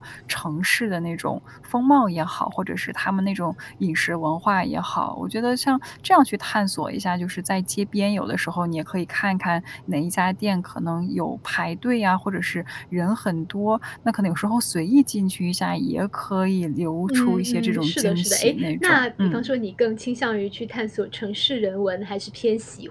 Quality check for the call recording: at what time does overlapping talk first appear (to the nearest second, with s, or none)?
17 s